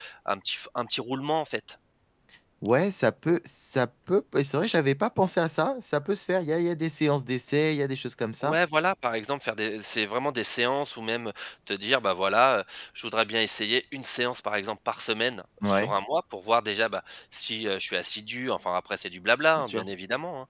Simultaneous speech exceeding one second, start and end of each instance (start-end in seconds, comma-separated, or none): none